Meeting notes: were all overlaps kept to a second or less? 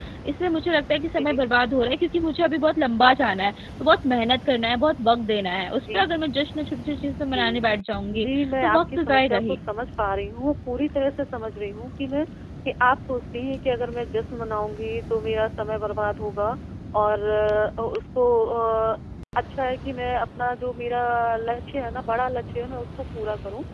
No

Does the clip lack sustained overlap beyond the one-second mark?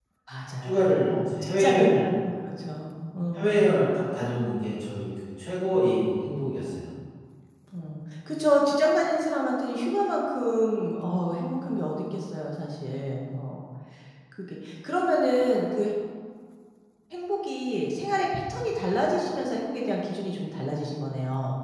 No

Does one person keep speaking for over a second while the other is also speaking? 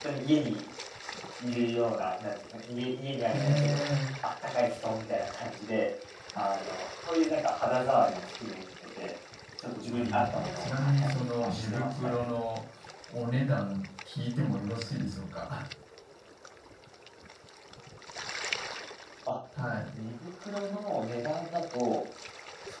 Yes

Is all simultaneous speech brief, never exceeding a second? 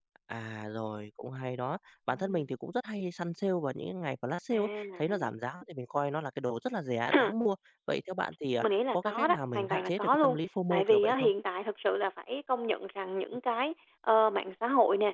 No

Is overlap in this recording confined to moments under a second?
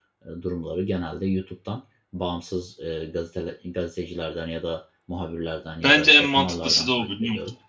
No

